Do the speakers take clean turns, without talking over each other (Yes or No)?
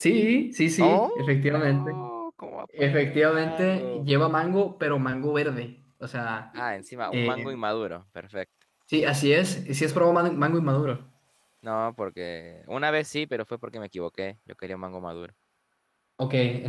No